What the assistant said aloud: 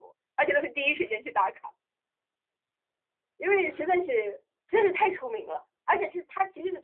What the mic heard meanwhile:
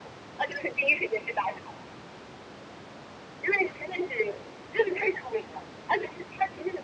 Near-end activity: none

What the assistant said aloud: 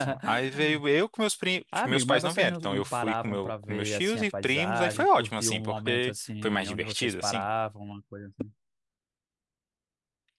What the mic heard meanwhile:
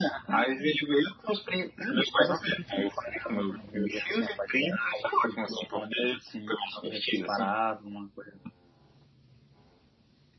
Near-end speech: none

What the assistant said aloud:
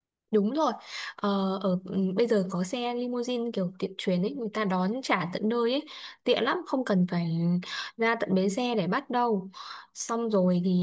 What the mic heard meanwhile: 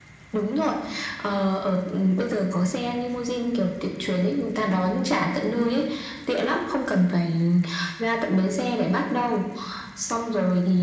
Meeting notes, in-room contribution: none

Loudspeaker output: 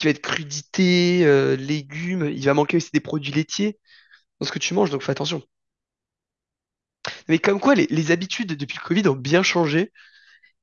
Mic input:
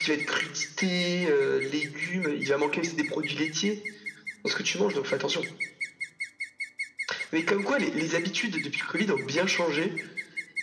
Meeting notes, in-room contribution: none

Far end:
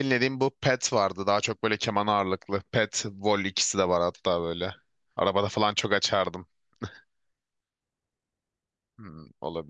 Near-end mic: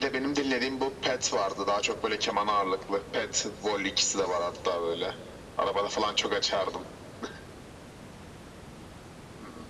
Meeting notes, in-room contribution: none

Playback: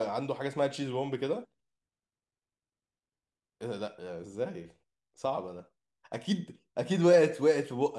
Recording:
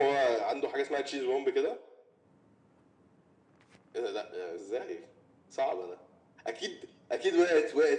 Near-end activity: none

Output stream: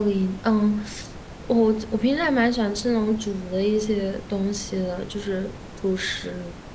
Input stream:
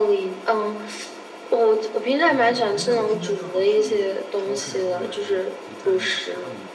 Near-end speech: present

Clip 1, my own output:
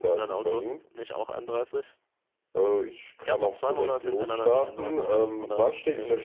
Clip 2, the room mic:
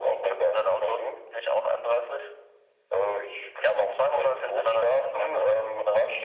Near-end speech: none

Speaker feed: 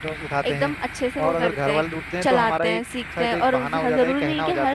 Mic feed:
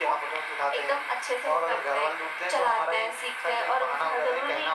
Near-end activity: none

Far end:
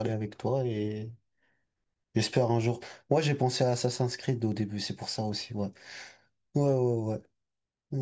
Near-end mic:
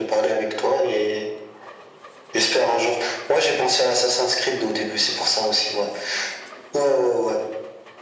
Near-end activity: none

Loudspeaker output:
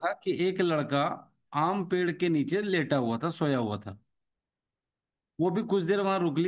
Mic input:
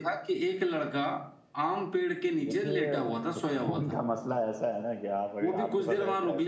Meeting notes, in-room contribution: present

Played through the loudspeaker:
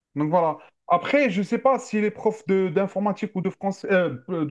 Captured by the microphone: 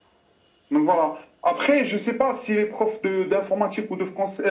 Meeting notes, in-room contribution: none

